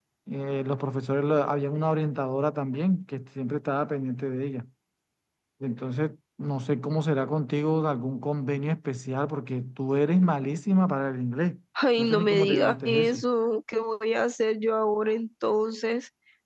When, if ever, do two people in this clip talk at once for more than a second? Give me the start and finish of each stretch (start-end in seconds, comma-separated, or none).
12.0-13.2